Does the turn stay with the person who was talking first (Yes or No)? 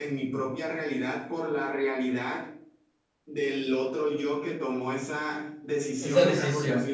Yes